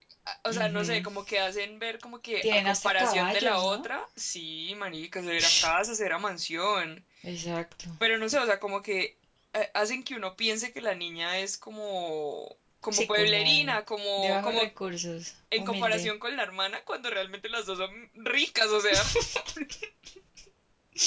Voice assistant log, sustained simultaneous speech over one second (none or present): present